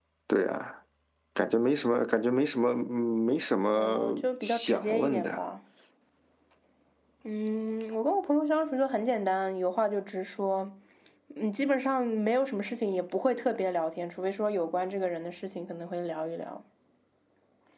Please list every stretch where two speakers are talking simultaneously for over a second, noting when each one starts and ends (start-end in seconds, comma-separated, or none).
3.7-5.4